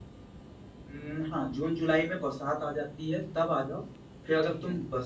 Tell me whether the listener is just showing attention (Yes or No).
Yes